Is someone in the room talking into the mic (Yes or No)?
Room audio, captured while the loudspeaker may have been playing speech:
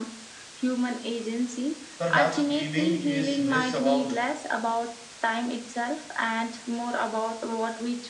Yes